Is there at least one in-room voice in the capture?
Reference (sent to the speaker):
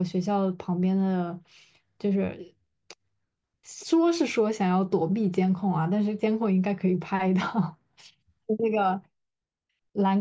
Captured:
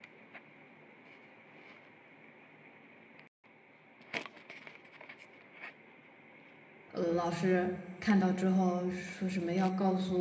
Yes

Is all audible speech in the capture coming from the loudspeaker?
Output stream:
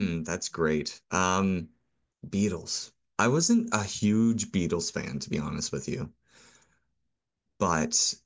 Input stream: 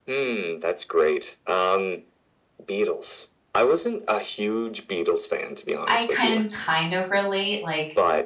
No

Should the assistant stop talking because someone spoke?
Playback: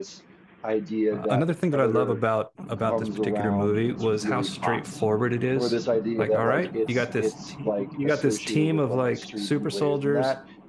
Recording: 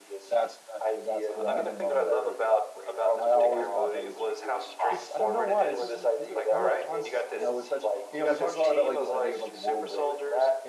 Yes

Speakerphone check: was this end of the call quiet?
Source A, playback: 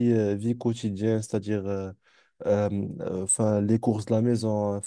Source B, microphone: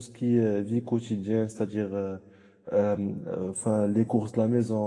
Yes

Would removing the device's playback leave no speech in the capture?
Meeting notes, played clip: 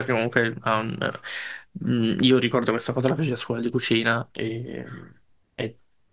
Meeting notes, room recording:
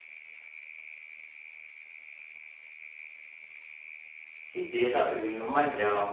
No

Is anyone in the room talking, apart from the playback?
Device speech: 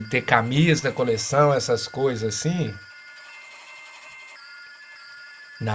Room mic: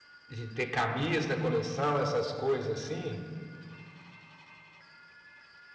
No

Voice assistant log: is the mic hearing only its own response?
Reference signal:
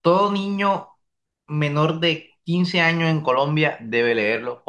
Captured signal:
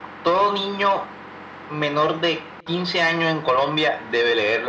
Yes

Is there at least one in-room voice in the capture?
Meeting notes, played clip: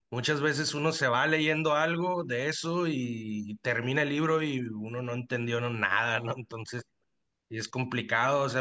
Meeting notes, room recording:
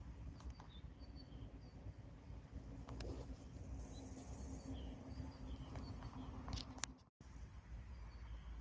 No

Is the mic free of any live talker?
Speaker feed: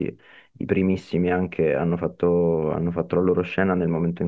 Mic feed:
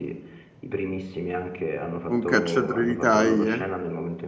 No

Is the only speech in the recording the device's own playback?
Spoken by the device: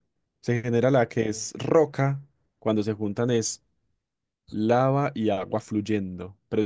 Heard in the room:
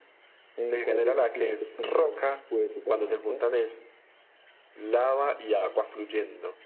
No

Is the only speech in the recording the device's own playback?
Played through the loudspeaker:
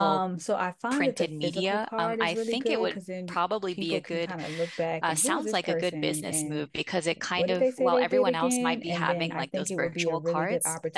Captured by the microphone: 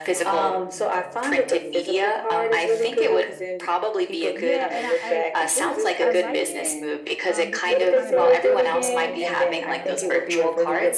No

